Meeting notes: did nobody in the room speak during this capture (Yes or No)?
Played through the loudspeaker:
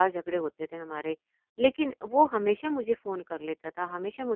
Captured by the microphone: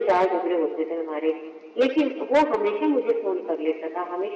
Yes